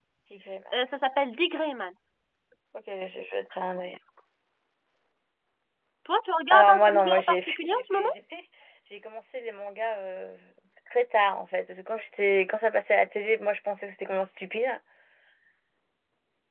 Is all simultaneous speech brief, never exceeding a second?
No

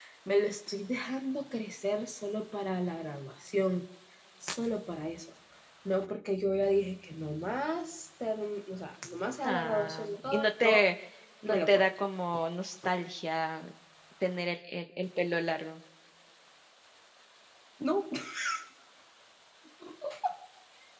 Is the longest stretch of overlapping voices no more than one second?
No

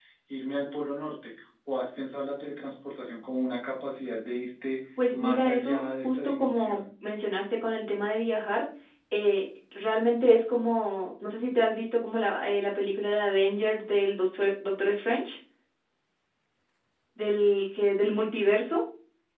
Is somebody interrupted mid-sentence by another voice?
Yes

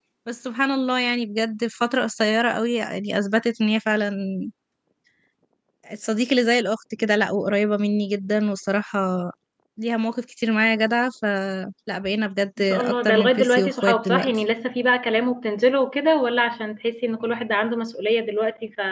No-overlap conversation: No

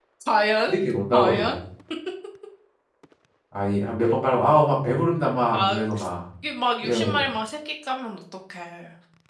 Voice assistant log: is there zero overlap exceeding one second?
Yes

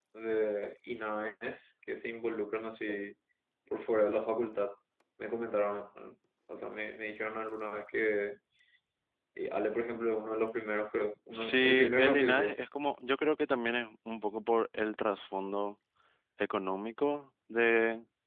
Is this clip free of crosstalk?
No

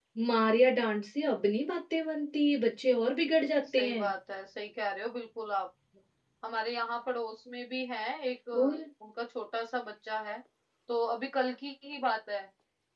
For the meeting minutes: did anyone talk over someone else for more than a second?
No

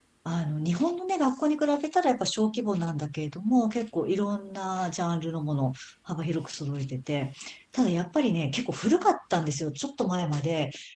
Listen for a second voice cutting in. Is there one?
No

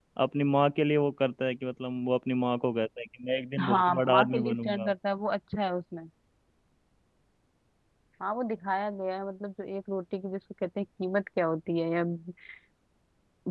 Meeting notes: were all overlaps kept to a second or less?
No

